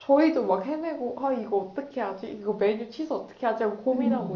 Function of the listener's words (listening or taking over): listening